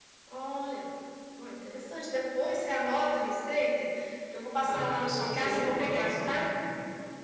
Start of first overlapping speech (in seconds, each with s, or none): 4.7 s